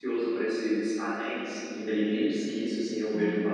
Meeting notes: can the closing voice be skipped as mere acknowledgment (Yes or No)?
Yes